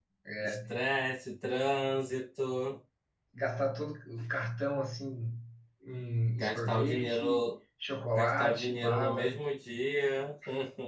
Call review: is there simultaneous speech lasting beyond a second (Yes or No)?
Yes